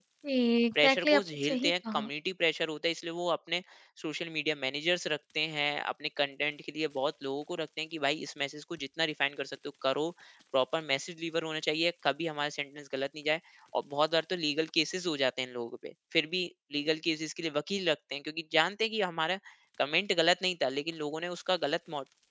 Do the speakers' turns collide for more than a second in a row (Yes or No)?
Yes